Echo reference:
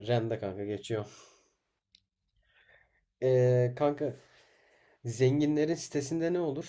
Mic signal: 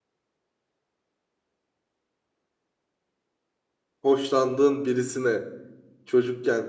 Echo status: none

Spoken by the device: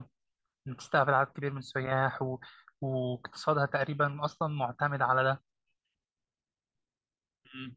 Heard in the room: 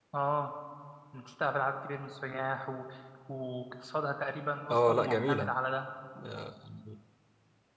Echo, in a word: present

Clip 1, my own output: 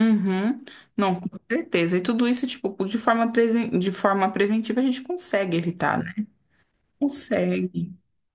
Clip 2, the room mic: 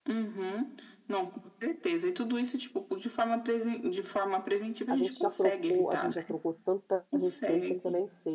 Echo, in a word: present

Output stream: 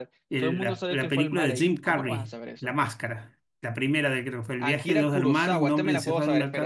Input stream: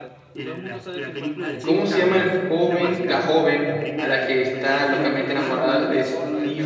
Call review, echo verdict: present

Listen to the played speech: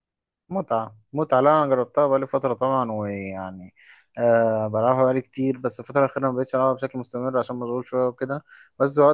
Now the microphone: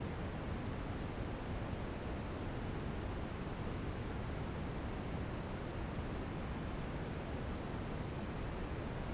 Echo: none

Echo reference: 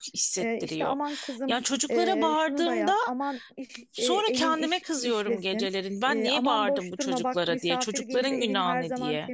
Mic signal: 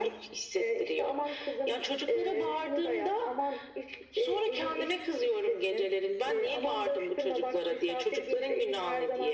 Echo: present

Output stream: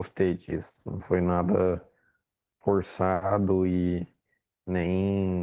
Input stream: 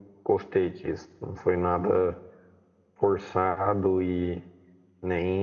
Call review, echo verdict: present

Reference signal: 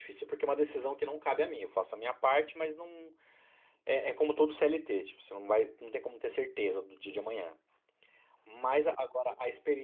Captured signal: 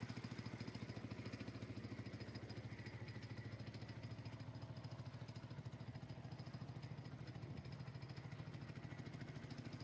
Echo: none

